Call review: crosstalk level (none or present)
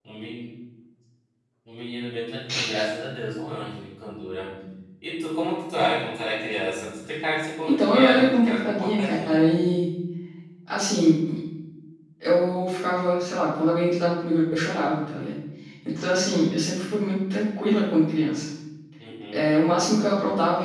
present